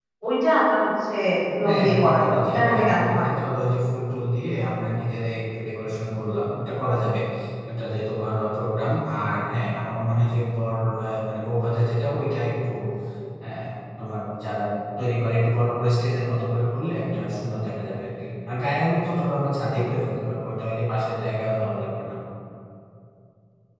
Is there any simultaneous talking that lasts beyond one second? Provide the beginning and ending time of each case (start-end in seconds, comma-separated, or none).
1.6-3.3